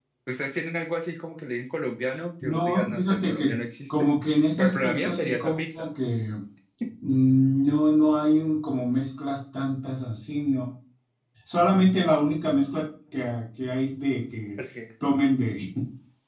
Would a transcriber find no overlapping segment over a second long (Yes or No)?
No